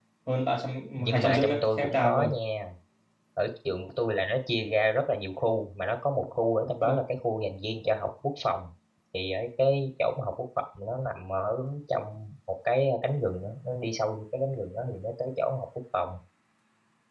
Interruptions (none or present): present